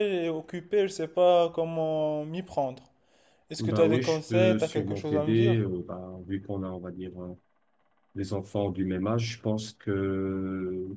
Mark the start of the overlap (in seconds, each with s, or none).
3.6 s